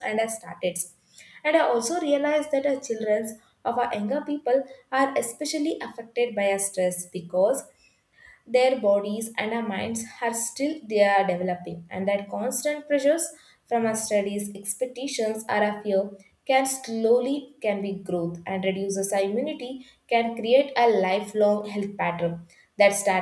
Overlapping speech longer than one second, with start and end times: none

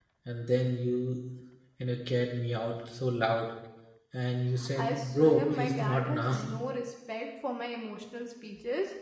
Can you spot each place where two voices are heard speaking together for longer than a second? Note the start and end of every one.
4.8-6.3

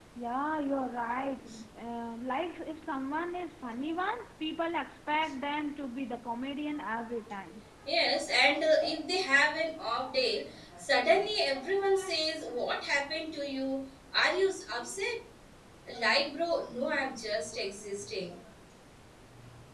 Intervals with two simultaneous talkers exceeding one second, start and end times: none

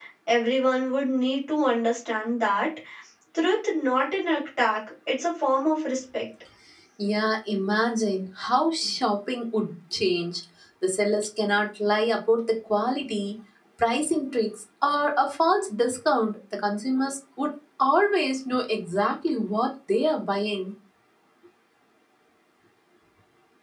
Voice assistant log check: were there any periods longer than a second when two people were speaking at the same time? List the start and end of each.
none

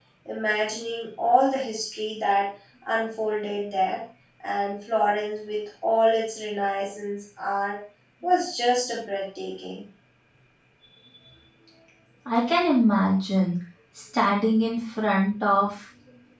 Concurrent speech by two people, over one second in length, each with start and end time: none

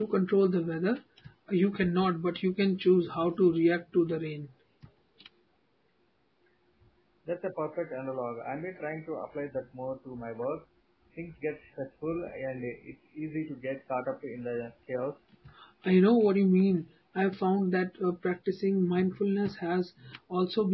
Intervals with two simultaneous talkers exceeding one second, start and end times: none

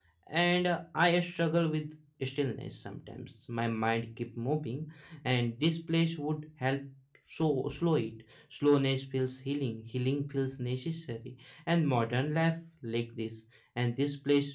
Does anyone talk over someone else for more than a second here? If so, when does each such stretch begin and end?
none

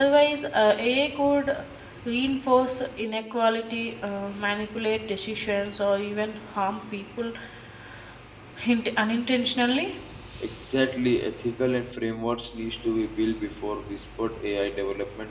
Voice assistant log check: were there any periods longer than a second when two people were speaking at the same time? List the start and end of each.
none

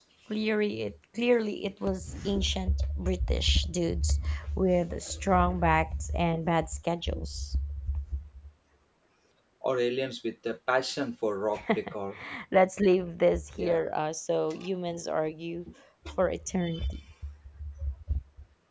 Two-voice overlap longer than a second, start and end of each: none

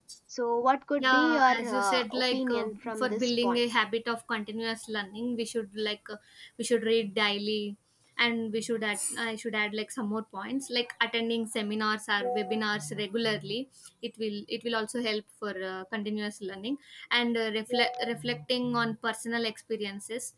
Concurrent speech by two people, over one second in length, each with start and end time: 1.0-3.6

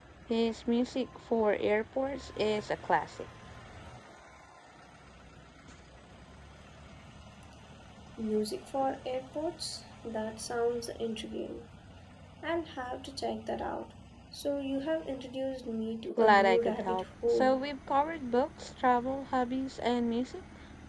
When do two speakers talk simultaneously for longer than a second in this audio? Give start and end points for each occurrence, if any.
16.1-17.6

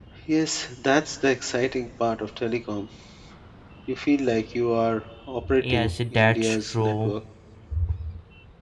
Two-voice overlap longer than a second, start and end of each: 5.6-7.1

